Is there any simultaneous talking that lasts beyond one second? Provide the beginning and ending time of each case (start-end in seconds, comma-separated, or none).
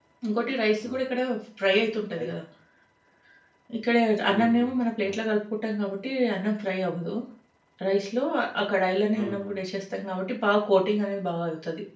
none